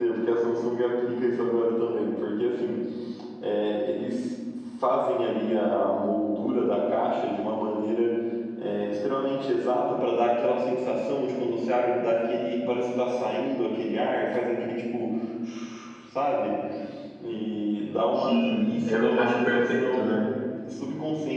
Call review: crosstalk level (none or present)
present